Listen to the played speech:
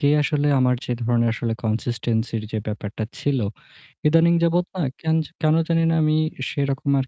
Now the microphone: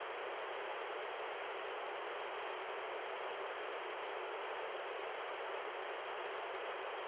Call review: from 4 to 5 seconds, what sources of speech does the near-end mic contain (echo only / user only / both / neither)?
neither